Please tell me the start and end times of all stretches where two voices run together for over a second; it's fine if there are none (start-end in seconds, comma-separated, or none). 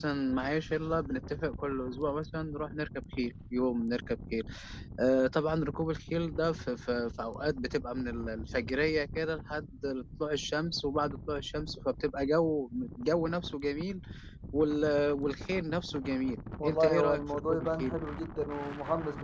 16.6-18.0